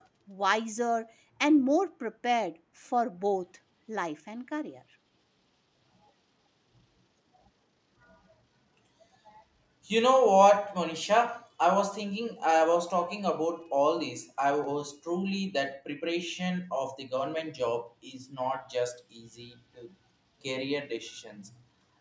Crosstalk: none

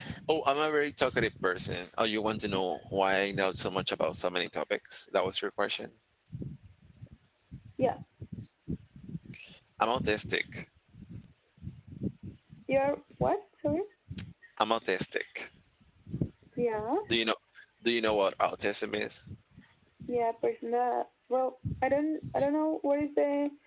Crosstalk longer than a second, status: none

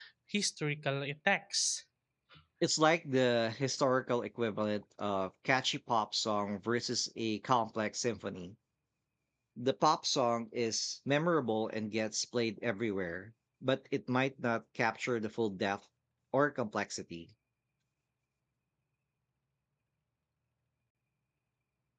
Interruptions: none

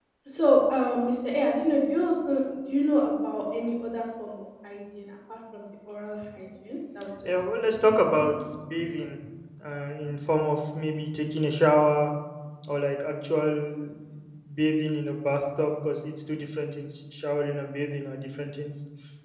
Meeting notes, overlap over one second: none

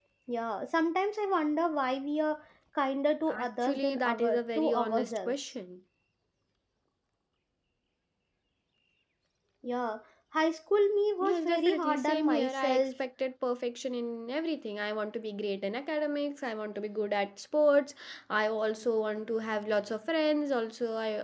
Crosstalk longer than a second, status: present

